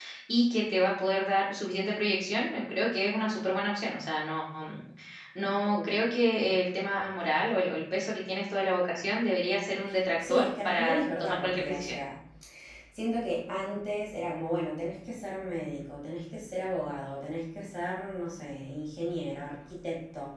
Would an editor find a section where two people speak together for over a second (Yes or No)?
Yes